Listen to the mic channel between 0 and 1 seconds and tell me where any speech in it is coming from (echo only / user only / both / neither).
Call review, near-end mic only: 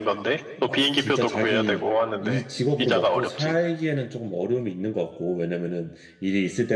both